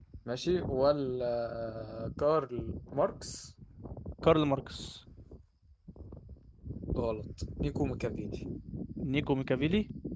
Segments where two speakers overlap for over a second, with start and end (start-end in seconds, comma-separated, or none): none